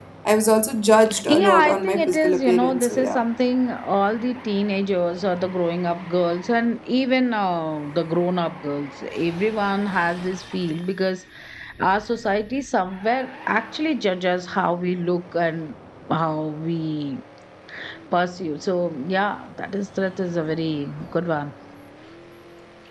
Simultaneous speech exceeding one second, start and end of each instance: 1.3-3.2

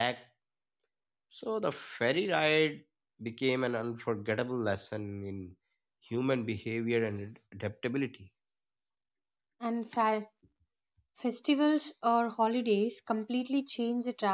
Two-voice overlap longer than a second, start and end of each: none

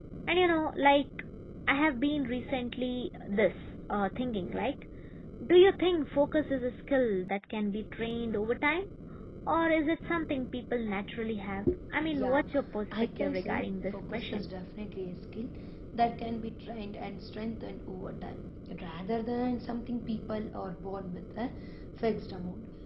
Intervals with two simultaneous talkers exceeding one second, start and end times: 12.9-14.4

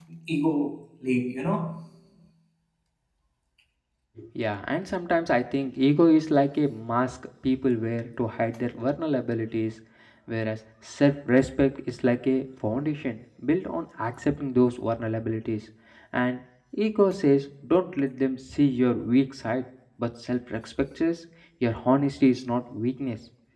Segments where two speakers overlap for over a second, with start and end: none

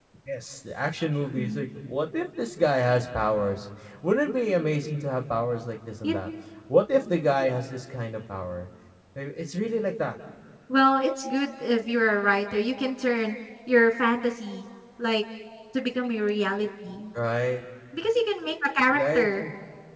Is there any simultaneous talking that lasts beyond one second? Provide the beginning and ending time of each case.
none

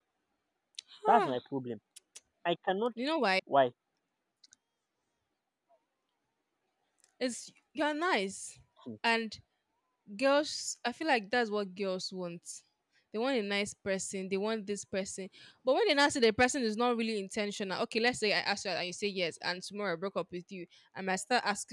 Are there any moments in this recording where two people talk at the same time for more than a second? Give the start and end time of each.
none

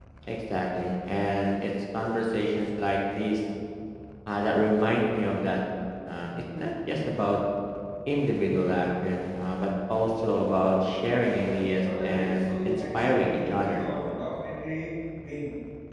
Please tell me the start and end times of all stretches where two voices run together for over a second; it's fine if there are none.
11.8-13.8

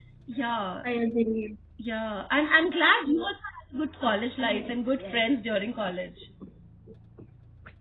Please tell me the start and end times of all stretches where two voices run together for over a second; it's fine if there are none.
4.4-5.8

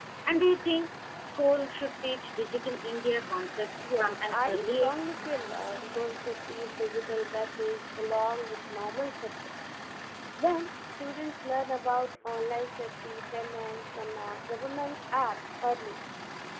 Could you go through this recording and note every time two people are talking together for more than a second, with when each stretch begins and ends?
3.8-5.1

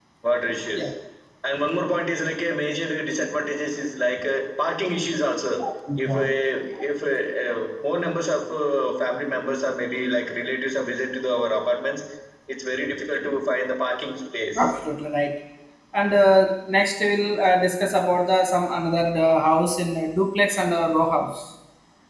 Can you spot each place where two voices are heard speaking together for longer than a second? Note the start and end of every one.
none

